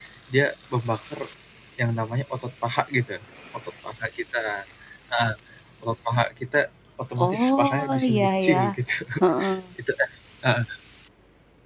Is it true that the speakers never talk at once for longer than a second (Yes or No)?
No